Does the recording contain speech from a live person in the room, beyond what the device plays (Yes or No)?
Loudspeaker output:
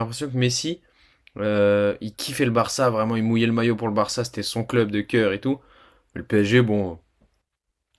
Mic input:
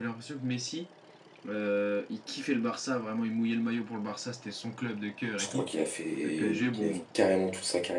Yes